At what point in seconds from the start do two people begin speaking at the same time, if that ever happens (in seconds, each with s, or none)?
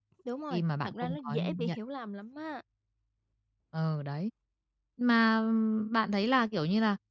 0.5 s